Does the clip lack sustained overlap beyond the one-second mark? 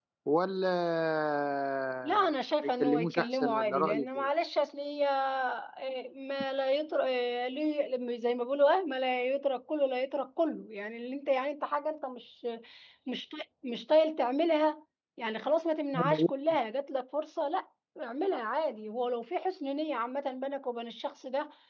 No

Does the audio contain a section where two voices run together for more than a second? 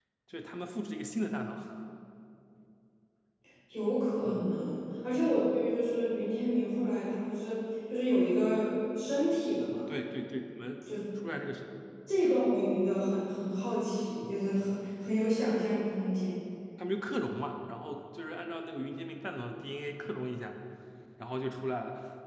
No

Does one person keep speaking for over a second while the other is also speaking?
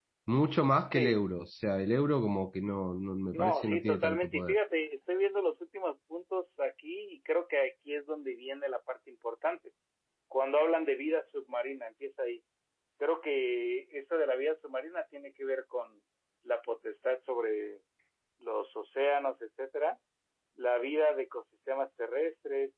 Yes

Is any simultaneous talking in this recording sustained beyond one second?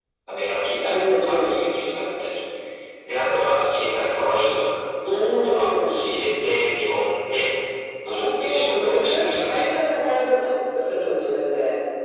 Yes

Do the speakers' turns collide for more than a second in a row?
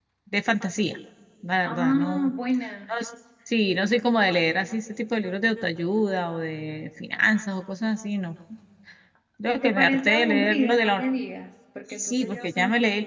Yes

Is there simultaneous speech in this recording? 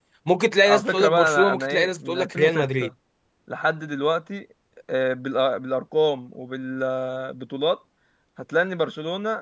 Yes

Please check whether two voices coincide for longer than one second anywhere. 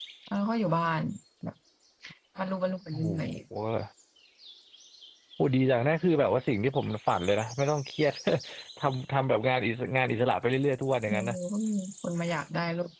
No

